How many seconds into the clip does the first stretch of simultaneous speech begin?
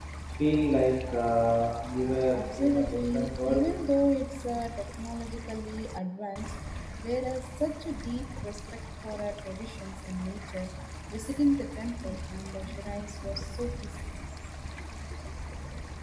2 s

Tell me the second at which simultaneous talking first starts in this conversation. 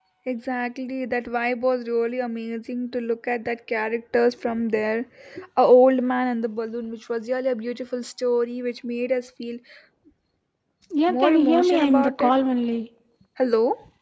11 s

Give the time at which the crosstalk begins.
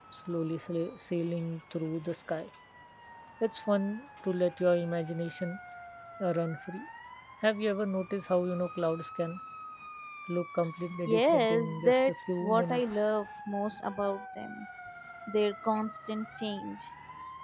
11 s

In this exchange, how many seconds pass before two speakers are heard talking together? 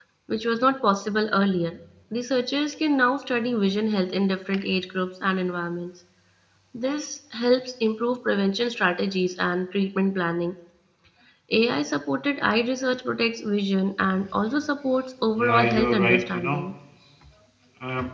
15 s

